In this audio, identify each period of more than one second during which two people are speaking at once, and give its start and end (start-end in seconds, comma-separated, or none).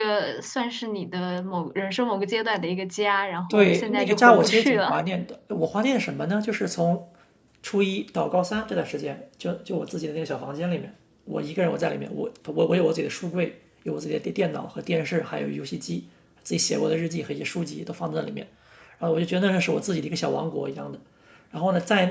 3.5-5.0